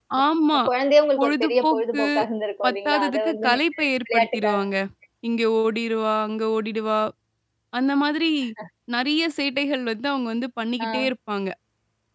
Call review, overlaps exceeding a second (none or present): present